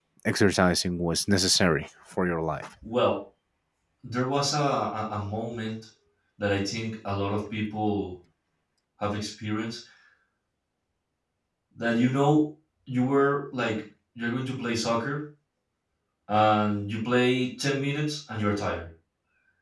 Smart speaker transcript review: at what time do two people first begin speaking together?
none

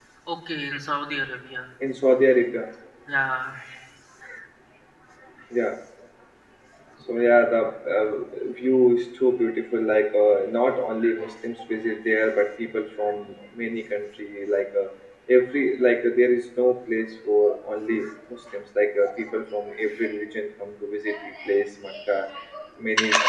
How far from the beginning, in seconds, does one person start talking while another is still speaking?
none

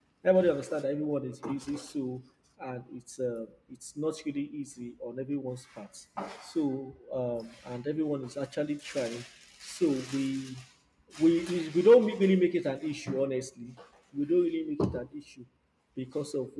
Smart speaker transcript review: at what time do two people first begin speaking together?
none

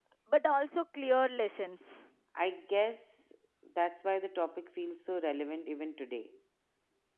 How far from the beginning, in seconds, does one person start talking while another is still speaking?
none

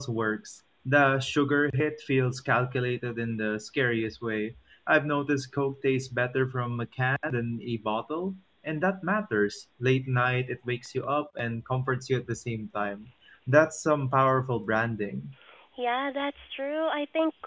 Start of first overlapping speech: none

